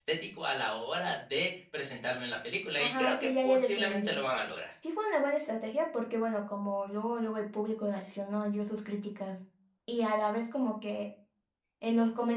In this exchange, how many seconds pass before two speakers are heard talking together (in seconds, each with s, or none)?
2.8 s